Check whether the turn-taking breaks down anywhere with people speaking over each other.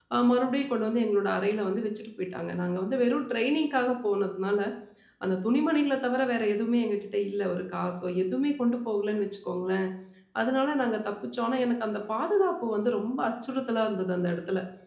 No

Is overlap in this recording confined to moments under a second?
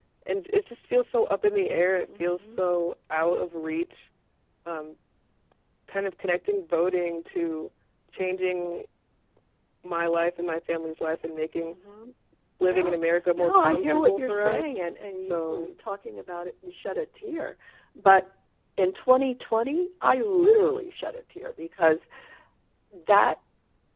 No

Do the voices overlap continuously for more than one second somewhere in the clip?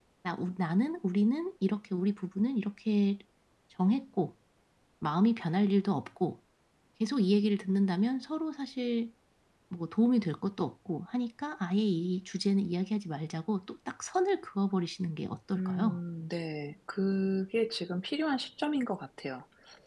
No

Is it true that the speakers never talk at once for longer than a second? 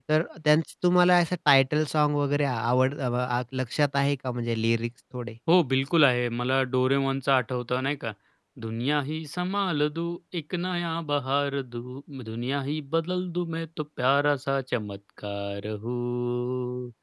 Yes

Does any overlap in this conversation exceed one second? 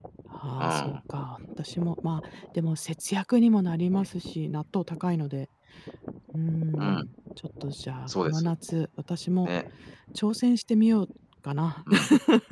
No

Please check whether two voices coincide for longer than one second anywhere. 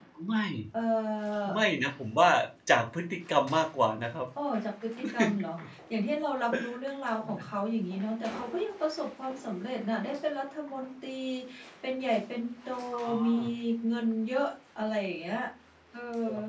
No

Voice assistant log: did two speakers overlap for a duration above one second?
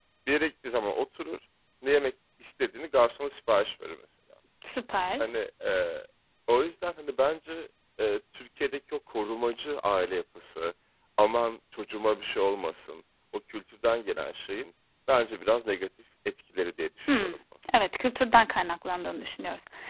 No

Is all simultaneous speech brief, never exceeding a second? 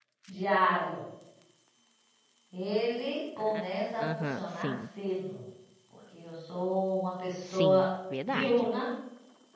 No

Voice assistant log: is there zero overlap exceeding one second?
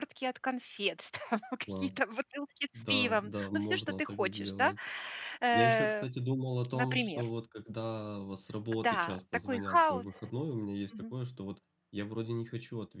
No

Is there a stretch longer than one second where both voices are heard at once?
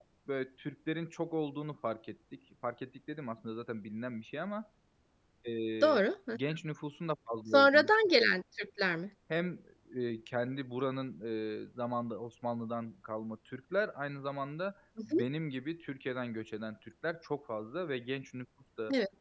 No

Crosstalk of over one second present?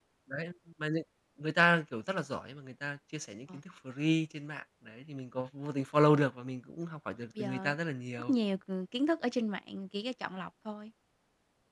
No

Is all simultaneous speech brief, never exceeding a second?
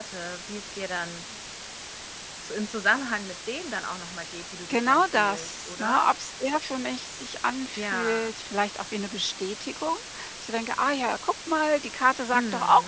No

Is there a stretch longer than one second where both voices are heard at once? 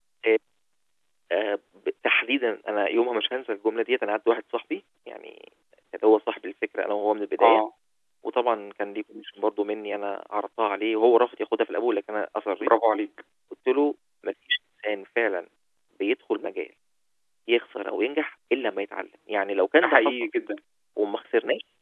No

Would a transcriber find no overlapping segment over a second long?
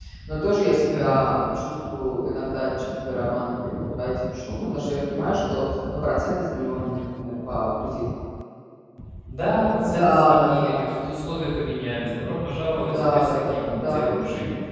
No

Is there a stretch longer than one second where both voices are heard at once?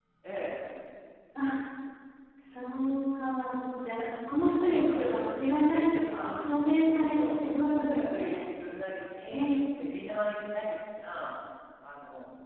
Yes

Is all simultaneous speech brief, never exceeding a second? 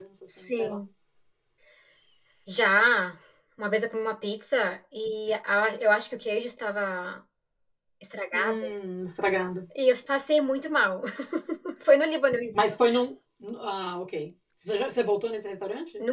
Yes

